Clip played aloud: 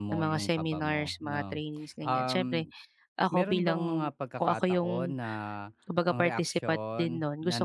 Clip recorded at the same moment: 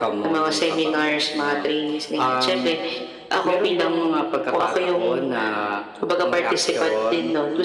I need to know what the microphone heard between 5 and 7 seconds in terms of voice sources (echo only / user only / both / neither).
echo only